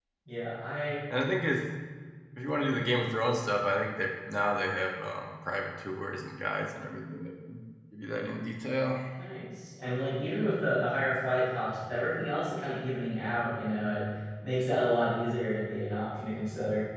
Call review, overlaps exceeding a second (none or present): none